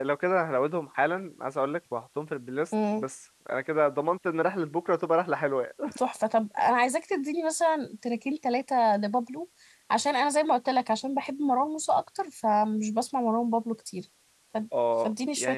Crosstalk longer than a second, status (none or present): none